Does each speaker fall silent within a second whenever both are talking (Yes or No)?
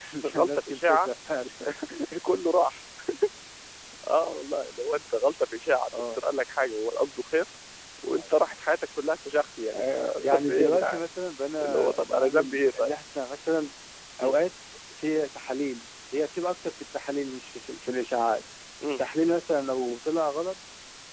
No